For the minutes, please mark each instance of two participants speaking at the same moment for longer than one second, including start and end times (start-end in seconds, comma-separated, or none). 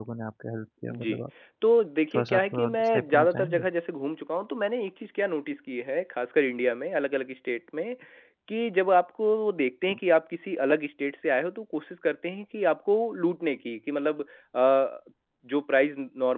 2.2-3.7